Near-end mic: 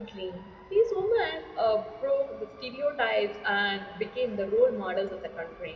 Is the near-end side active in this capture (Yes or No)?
Yes